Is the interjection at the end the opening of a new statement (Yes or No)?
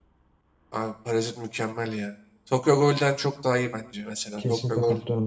Yes